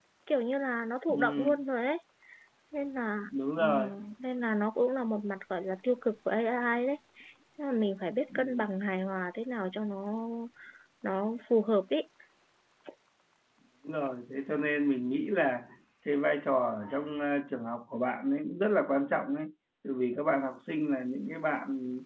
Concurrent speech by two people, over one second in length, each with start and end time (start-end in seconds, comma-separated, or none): none